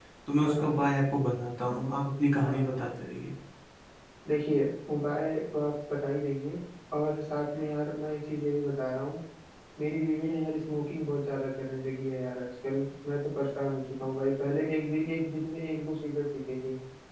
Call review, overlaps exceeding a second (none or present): none